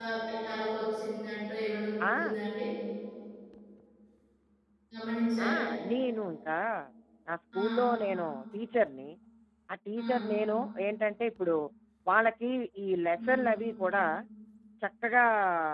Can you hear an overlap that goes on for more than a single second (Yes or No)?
No